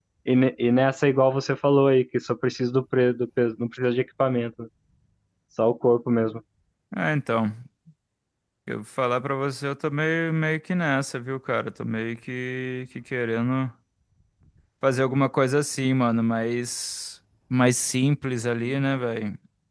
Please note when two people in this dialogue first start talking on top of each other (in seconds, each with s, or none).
none